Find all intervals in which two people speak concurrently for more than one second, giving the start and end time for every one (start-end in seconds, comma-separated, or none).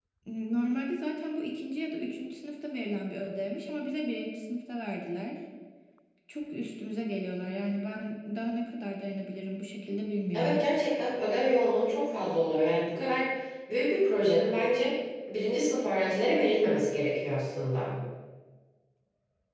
none